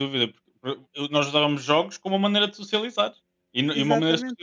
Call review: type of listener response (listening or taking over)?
listening